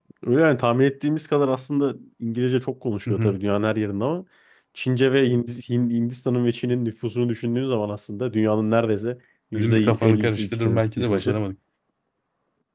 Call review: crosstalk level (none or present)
present